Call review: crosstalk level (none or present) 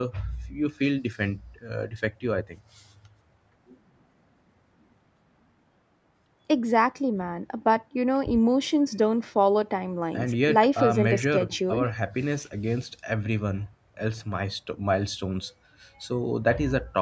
present